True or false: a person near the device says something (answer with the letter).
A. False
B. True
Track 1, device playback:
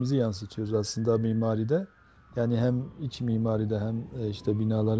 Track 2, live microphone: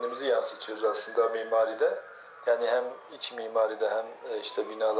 A